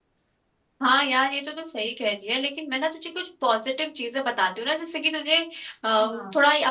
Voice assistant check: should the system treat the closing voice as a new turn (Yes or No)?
No